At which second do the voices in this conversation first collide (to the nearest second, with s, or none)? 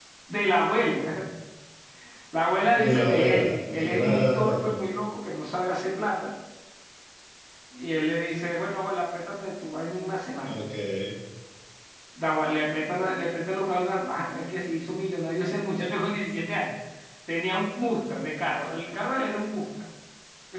3 s